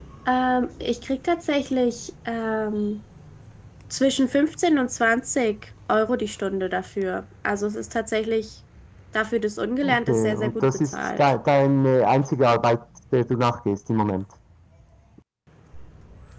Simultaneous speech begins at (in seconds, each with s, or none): 9.8 s